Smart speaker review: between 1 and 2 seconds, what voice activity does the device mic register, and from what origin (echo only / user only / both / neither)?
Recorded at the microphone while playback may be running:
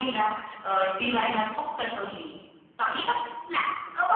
echo only